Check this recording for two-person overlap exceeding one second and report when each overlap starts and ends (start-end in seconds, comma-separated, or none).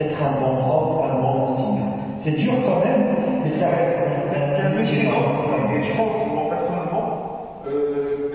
4.3-5.8